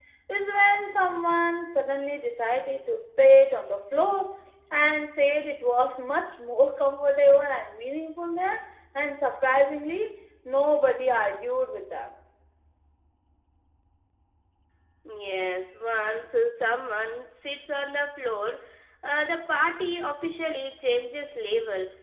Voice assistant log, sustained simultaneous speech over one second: none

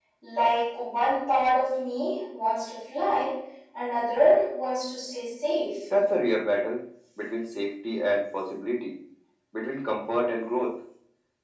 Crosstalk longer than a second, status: none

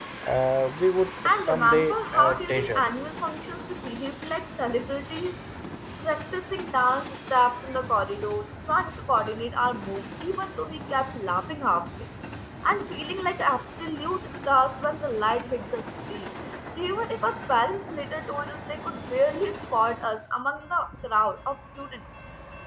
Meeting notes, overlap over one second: present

